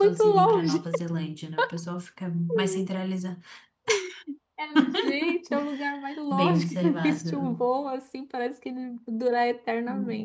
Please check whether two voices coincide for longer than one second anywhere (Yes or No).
Yes